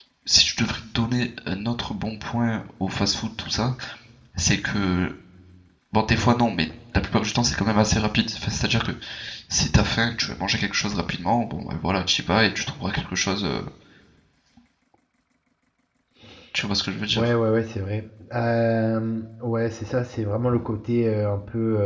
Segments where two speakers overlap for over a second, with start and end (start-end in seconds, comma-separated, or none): none